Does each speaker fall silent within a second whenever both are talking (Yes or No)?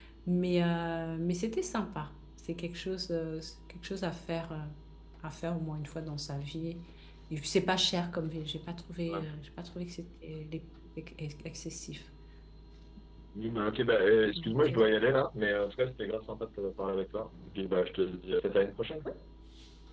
Yes